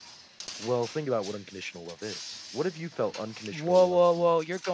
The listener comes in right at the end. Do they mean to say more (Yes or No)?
Yes